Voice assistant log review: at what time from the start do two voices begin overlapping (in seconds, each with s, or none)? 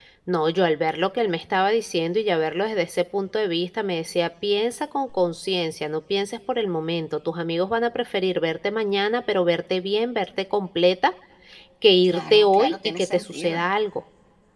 12.0 s